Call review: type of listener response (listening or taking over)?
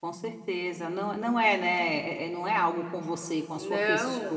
taking over